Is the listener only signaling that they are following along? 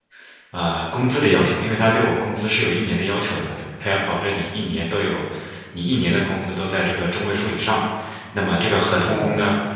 Yes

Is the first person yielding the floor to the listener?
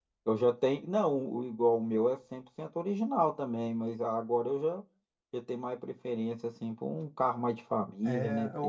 Yes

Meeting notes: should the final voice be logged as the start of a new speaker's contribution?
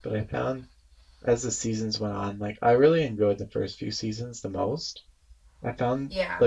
No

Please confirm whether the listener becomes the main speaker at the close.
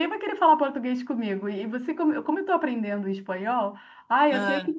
No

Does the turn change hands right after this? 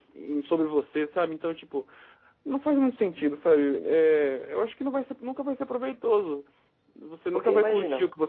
No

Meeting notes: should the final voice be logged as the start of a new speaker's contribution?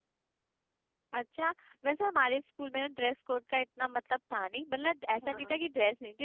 No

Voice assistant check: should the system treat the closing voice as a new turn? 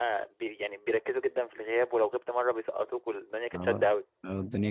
Yes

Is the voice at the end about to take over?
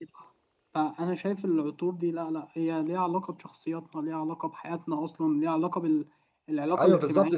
Yes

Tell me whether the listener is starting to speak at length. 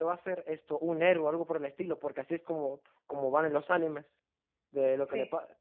No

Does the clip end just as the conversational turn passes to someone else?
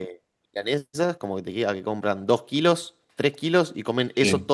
No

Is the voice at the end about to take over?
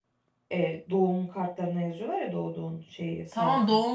Yes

